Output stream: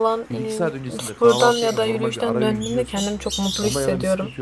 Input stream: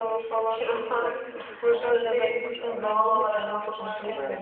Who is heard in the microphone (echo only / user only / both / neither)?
both